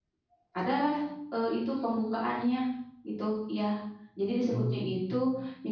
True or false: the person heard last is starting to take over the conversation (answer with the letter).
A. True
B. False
B